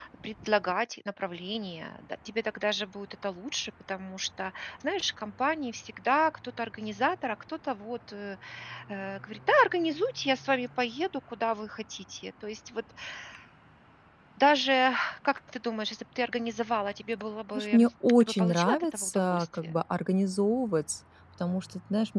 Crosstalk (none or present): present